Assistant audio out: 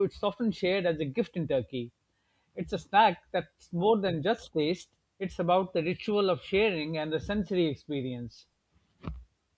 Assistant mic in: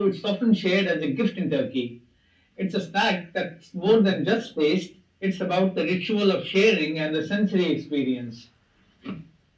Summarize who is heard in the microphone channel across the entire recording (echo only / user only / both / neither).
echo only